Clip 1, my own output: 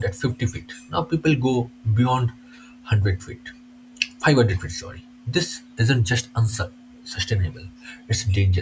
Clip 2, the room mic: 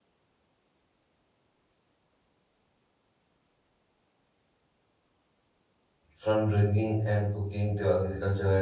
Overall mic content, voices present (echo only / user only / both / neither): user only